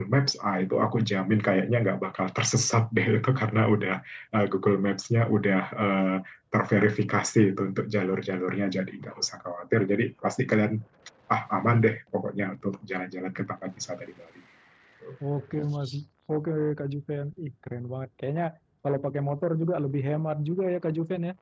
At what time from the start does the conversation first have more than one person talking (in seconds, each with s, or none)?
none